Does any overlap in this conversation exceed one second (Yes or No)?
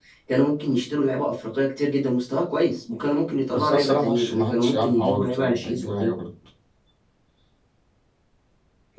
Yes